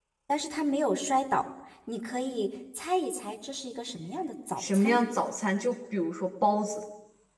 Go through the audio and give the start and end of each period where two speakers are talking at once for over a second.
none

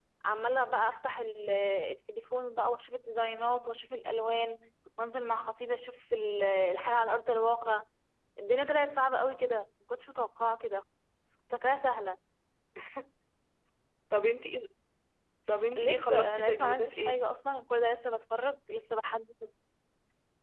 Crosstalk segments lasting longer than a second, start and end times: 15.8-17.2

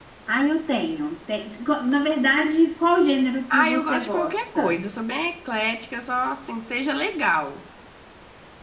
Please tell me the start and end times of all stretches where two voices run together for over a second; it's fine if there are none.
3.5-4.8

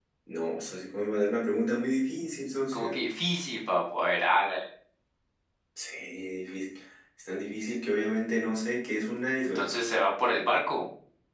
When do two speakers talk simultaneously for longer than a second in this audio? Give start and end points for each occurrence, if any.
none

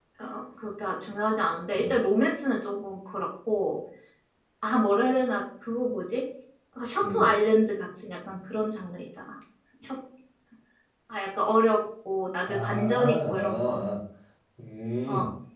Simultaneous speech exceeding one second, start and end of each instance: 12.5-13.7

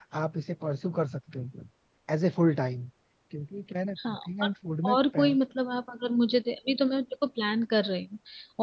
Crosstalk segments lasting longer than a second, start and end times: none

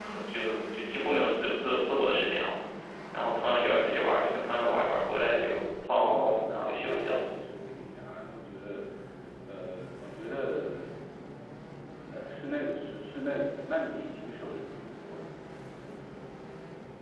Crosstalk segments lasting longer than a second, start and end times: 5.9-7.2

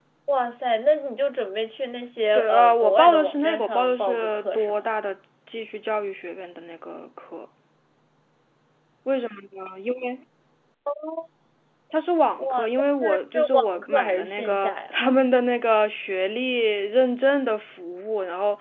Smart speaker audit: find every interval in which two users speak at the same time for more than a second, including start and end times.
2.3-4.9, 13.0-14.9

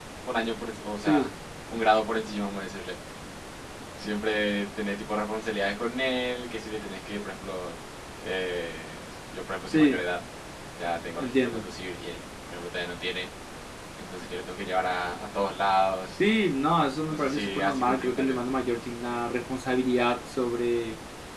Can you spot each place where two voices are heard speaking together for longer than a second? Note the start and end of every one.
17.1-18.5

